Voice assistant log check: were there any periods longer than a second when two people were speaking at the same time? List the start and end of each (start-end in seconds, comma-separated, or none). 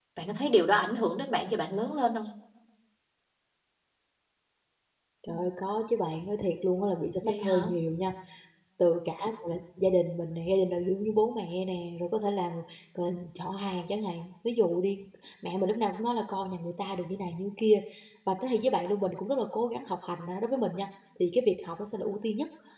none